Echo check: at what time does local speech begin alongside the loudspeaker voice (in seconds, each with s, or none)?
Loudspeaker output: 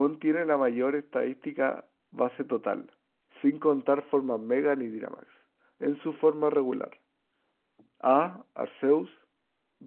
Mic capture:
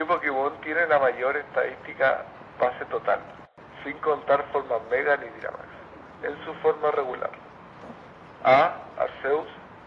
none